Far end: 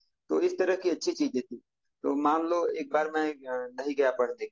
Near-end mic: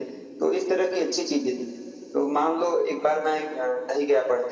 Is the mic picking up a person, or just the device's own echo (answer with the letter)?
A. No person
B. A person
A